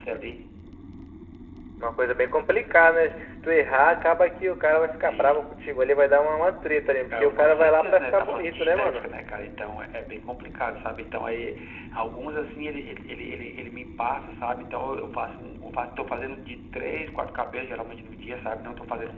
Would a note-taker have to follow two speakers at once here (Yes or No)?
Yes